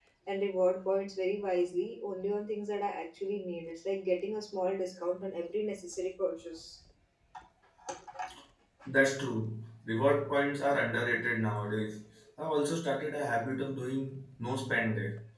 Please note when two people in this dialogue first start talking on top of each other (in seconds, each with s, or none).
none